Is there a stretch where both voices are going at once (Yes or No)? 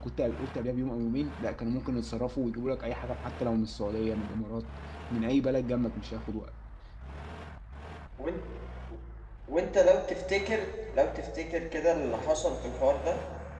No